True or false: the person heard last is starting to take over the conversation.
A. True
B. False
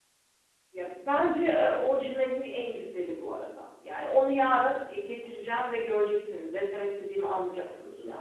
A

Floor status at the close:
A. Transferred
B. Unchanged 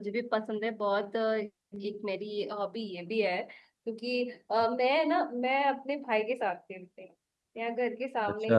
B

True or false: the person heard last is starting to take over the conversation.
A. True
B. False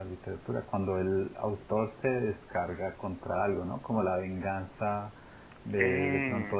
B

